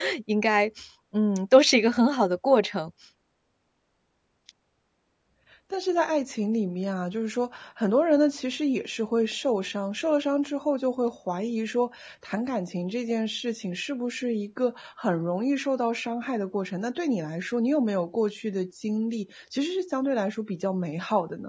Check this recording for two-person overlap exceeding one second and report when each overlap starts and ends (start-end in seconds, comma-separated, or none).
none